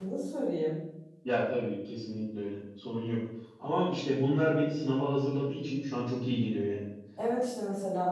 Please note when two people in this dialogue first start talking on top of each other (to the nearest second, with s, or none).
none